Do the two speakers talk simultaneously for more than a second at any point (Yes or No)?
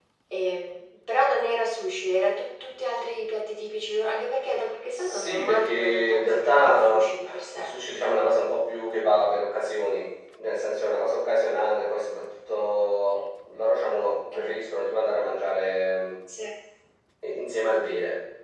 Yes